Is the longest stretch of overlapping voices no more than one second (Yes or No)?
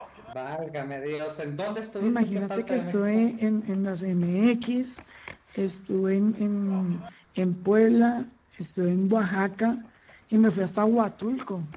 No